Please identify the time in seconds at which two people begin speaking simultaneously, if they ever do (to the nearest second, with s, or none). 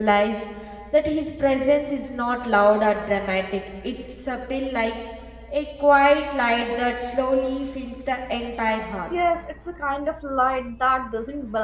none